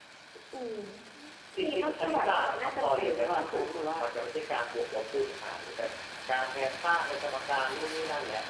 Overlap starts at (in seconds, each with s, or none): 1.6 s